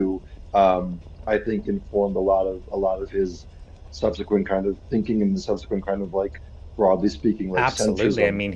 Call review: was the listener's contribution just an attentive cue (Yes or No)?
No